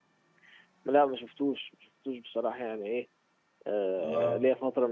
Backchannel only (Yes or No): Yes